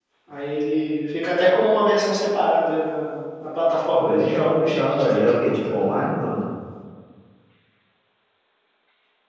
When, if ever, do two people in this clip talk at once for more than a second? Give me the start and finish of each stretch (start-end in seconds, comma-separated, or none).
4.0-5.9